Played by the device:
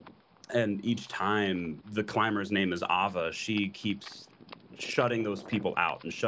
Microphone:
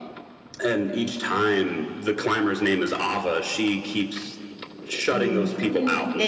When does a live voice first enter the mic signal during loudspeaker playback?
5.1 s

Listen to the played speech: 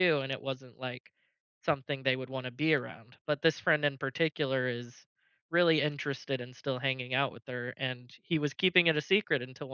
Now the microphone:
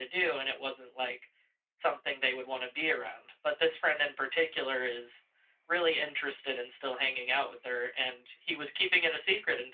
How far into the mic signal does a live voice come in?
none

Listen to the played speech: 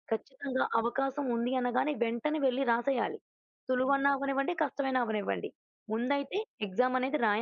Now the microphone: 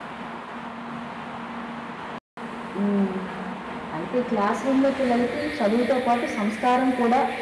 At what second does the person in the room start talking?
2.8 s

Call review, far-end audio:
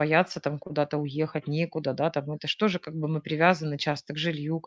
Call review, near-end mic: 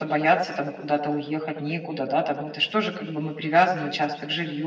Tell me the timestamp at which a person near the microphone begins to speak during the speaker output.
none

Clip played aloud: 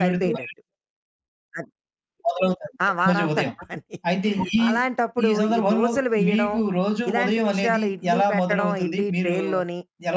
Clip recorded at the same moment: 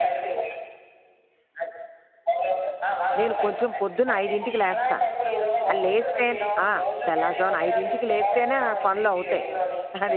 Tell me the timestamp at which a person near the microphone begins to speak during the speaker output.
3.2 s

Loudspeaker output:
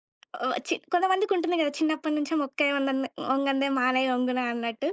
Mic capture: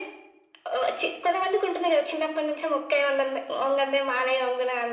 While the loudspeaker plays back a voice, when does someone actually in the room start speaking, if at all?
none

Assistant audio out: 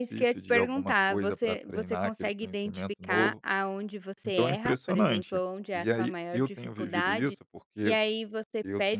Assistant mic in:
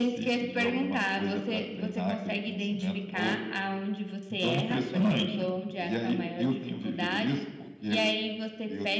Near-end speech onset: none

